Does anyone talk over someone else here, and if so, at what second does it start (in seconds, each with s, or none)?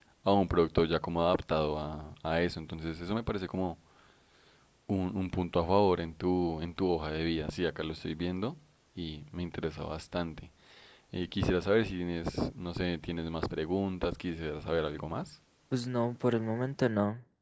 none